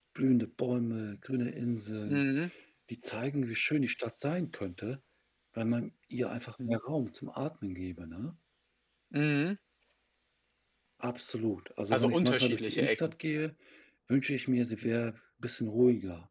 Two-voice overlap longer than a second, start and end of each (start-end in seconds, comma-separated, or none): 11.9-13.1